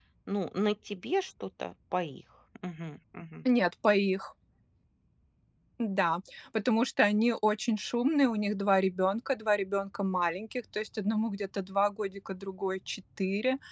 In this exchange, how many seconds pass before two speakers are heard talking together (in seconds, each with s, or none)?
none